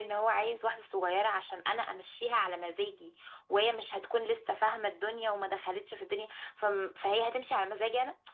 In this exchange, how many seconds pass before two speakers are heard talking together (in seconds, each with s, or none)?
none